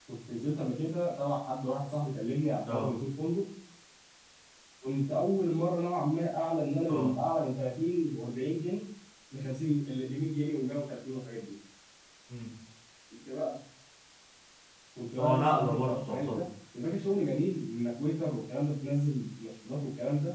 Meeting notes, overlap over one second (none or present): present